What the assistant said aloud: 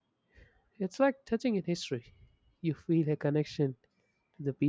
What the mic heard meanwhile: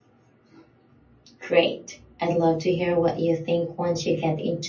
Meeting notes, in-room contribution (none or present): present